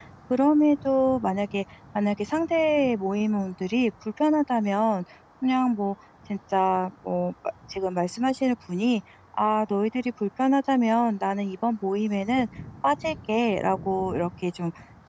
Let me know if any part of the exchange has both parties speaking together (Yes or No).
No